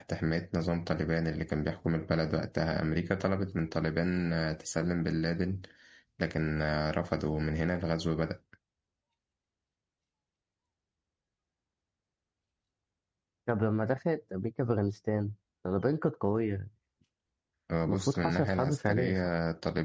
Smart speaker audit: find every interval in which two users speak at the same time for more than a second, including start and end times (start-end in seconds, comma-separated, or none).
17.9-19.2